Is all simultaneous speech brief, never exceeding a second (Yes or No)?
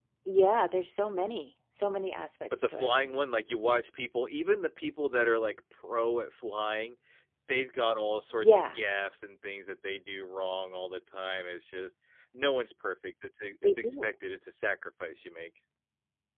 Yes